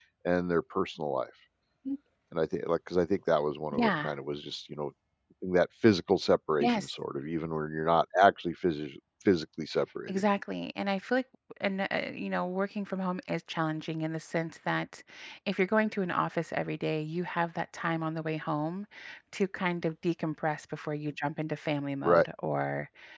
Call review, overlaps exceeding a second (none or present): none